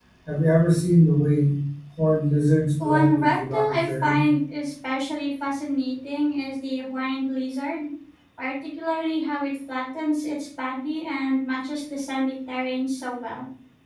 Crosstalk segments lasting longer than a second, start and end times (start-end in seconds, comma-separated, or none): 2.8-4.3